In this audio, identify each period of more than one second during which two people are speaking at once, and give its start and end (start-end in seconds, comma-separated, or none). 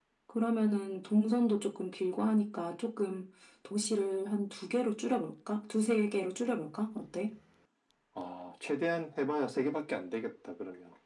none